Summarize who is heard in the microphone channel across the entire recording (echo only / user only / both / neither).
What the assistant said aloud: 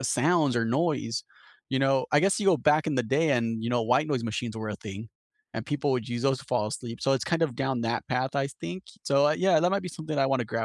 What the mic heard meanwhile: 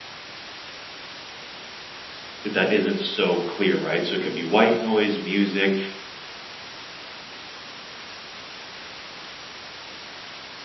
user only